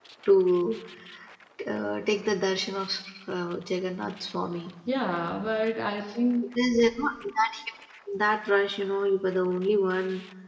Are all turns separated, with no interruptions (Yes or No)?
Yes